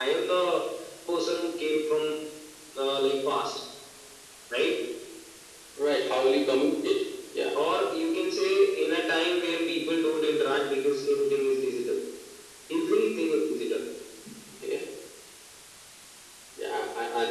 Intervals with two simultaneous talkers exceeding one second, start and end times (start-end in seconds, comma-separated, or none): none